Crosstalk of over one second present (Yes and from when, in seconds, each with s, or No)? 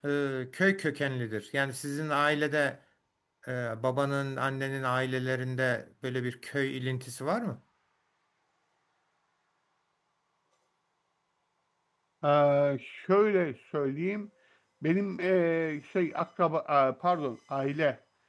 No